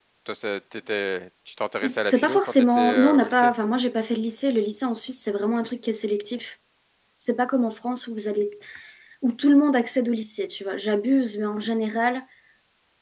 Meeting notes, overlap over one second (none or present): present